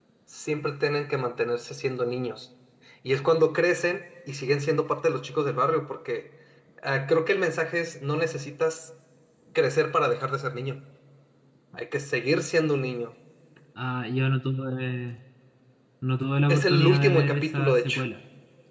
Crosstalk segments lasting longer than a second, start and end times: 16.5-18.0

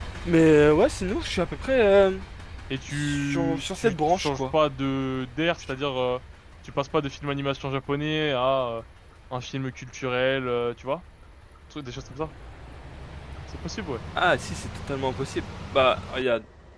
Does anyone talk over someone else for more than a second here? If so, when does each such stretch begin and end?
2.9-4.4

